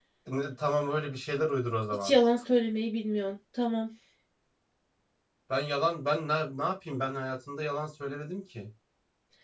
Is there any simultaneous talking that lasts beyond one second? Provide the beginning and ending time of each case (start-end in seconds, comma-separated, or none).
none